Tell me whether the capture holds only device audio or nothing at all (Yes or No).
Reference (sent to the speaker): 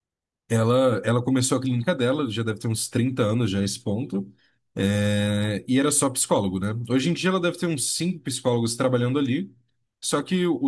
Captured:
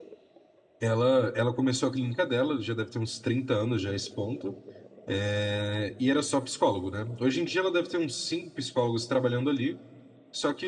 Yes